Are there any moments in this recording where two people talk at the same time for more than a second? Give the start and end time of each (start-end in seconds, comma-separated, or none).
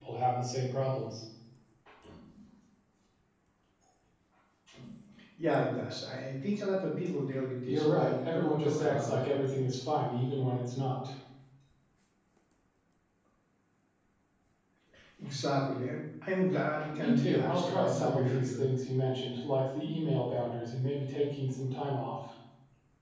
7.7-9.3, 16.9-18.6